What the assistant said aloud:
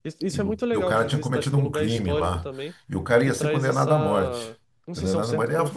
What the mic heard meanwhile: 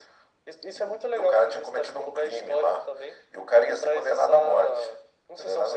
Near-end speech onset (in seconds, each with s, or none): none